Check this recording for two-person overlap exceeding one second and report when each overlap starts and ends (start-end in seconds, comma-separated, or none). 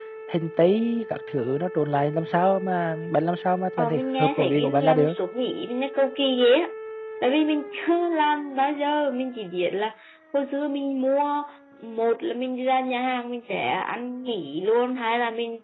3.8-5.1